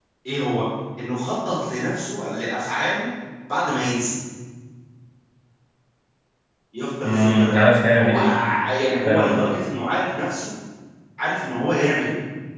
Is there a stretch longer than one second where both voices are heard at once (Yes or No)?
No